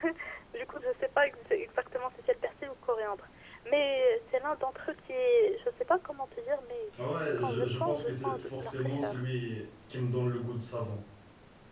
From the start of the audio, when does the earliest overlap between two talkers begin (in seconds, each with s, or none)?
7.4 s